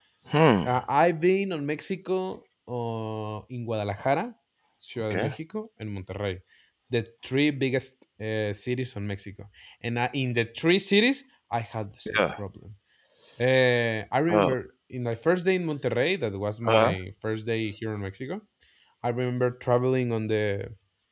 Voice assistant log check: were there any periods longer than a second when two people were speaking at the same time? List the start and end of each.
none

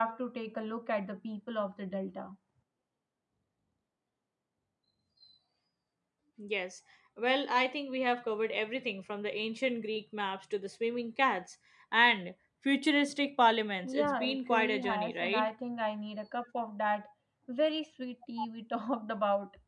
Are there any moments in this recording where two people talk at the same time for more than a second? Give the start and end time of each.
13.8-15.5

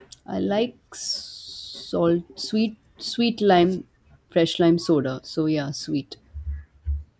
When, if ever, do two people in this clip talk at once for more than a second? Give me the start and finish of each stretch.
none

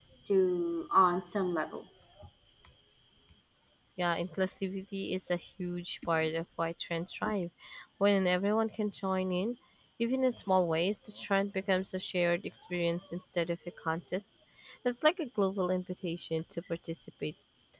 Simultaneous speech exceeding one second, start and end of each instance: none

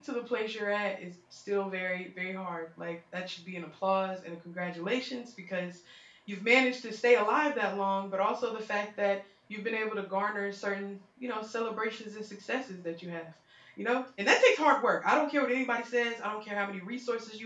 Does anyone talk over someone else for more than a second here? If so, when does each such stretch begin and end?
none

